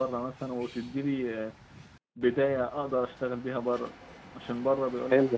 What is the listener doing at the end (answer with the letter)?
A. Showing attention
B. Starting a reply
A